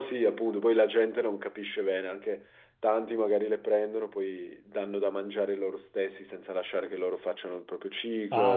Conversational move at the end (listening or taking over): taking over